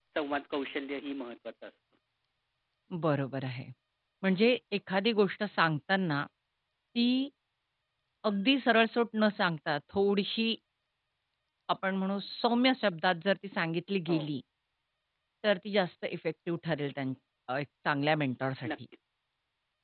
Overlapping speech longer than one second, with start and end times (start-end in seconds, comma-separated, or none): none